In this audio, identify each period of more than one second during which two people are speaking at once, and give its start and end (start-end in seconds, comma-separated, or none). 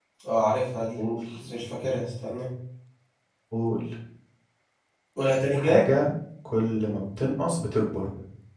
none